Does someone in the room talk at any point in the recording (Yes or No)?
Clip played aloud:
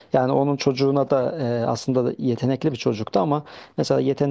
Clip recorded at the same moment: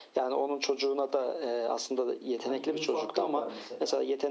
Yes